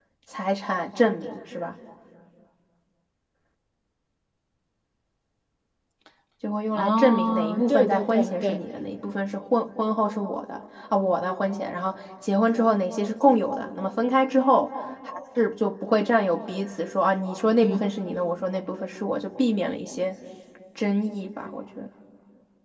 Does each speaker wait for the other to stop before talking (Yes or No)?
No